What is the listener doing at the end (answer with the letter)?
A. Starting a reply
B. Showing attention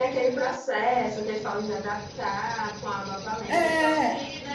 B